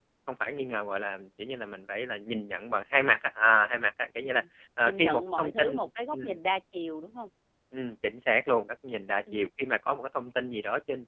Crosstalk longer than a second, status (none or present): present